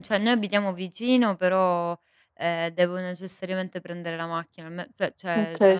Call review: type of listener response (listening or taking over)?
listening